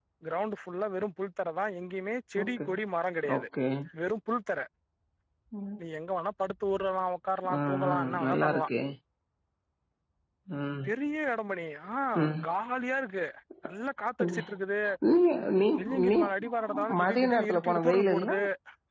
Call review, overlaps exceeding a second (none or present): present